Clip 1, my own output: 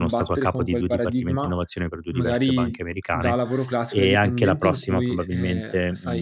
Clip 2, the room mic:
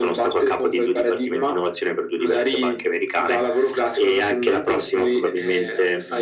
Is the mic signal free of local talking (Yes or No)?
Yes